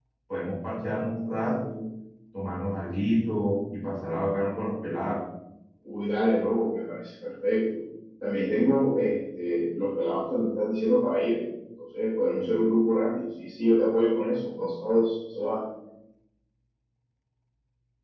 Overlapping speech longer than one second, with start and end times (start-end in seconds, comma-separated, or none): none